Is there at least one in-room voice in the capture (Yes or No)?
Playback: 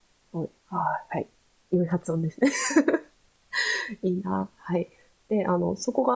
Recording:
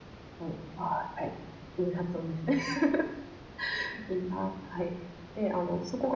No